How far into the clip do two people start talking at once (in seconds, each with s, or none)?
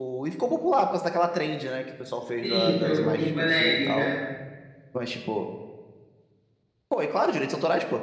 2.4 s